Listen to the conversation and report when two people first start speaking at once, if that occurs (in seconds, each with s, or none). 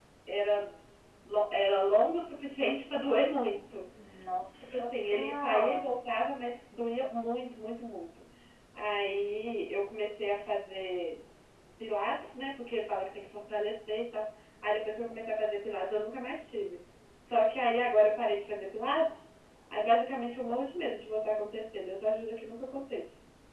4.6 s